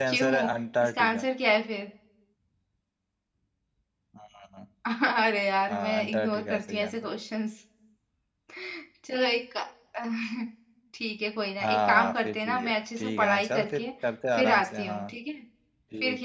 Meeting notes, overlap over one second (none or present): present